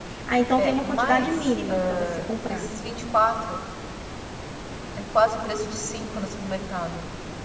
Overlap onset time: 0.6 s

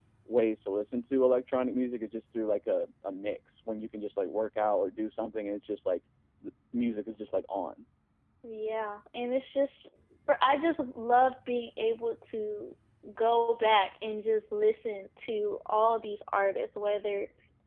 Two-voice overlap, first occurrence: none

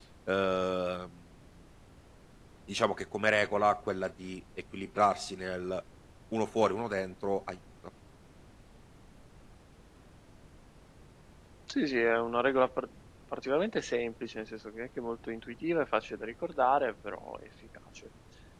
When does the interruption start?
none

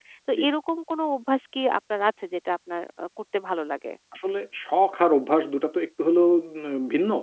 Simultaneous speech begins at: none

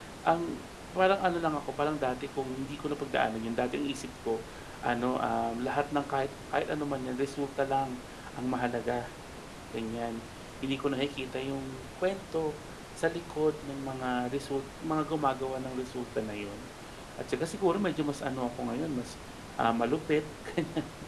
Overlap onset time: none

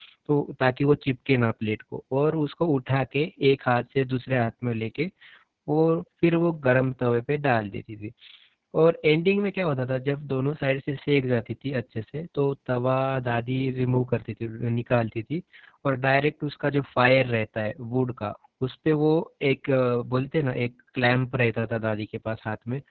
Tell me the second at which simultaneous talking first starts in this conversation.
none

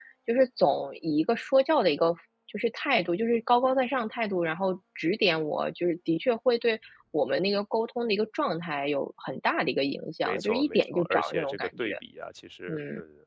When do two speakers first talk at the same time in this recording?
10.2 s

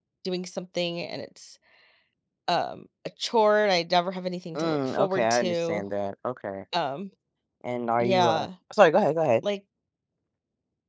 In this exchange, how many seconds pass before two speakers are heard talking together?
4.5 s

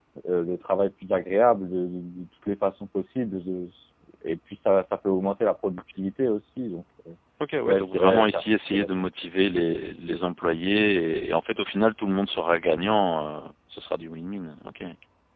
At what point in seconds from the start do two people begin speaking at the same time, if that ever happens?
7.7 s

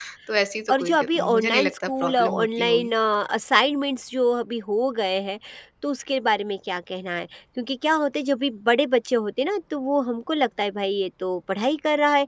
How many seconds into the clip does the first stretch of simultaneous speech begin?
0.7 s

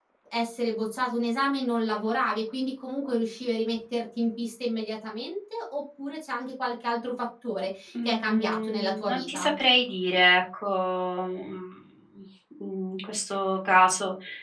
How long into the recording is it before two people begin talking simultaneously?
7.9 s

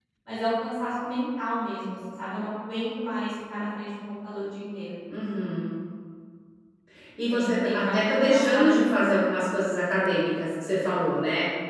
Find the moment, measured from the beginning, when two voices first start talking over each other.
7.3 s

